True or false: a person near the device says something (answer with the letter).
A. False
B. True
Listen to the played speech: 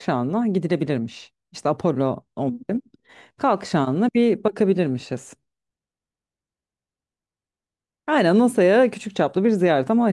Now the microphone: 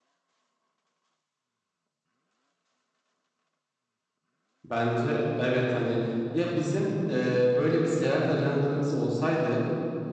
B